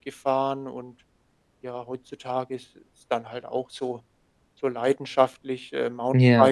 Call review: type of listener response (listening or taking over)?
listening